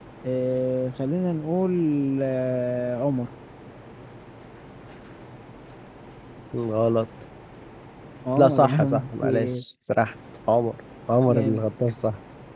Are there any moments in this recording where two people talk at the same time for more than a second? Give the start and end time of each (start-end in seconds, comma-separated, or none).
8.4-9.6